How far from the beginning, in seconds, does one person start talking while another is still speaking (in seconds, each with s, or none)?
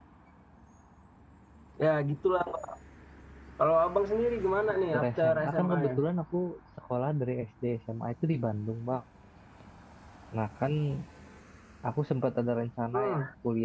4.7 s